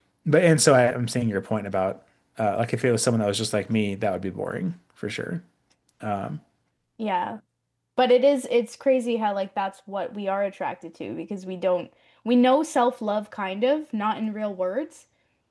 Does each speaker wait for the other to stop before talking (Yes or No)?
Yes